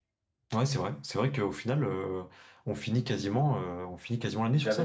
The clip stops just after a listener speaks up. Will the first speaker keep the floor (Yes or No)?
No